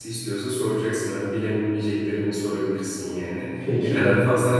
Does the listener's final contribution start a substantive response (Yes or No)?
No